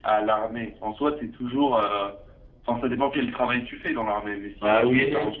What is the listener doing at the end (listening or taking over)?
taking over